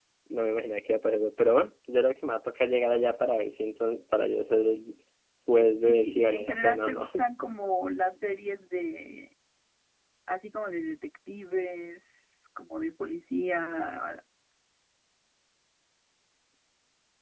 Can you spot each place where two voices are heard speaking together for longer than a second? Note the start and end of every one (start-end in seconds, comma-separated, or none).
5.6-7.1